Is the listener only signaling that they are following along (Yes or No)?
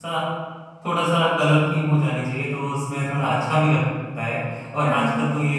Yes